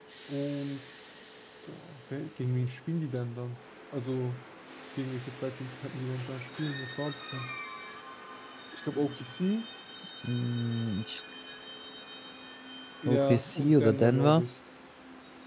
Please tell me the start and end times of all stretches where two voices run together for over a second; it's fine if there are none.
13.1-14.5

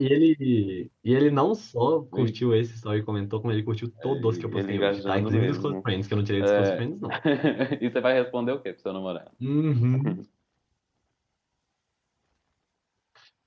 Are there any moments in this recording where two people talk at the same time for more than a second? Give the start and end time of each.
4.0-5.8

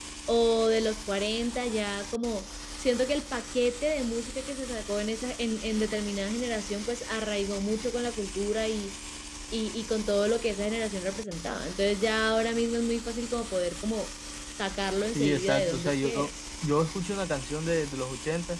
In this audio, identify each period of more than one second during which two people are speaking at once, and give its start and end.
15.0-16.3

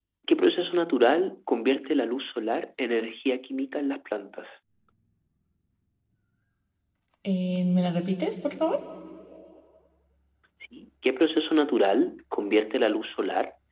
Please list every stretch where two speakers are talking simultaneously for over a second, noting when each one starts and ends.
none

